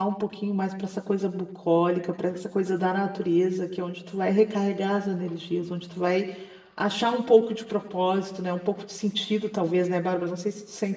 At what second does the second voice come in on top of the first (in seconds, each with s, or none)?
none